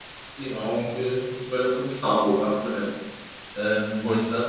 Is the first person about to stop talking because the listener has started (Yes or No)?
No